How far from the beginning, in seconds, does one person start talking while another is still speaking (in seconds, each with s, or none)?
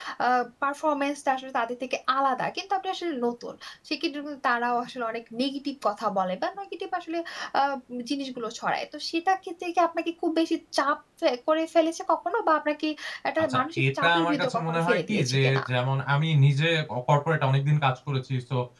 13.5 s